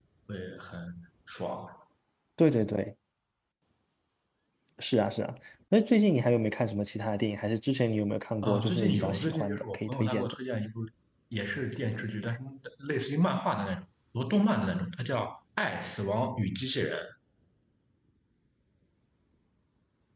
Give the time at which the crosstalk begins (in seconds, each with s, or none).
8.4 s